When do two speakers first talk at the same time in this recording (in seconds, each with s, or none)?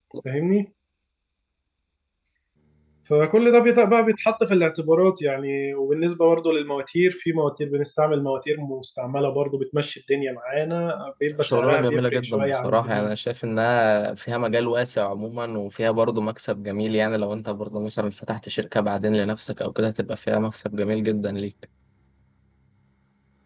11.4 s